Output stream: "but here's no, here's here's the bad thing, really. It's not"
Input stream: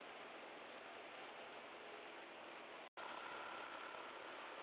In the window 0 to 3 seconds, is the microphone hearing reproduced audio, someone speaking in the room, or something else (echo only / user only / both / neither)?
neither